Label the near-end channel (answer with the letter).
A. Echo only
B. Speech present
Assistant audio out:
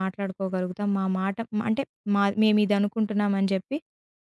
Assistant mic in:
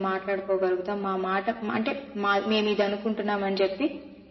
A